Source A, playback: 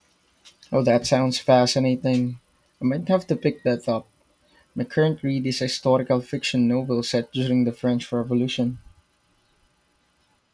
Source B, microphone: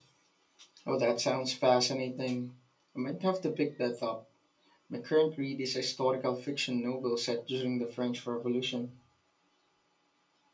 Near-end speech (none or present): none